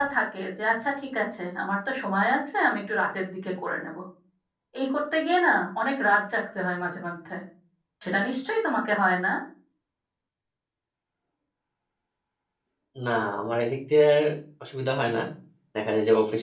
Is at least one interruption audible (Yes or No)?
No